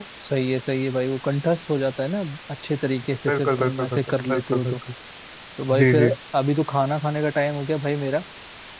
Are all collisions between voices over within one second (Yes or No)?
No